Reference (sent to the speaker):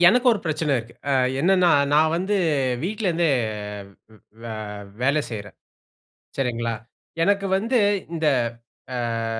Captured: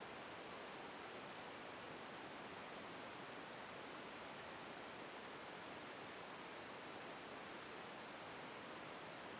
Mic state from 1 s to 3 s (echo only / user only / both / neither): neither